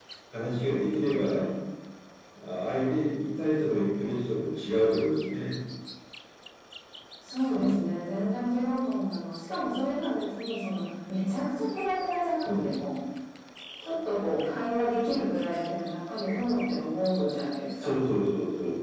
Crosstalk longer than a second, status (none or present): none